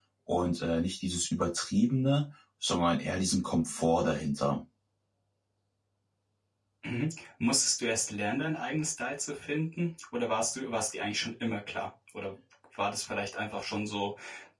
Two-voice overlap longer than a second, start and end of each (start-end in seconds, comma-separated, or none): none